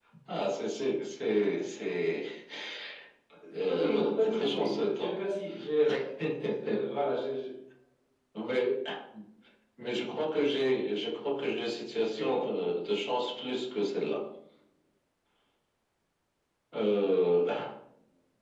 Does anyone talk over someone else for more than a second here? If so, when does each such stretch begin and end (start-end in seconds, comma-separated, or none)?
3.5-5.1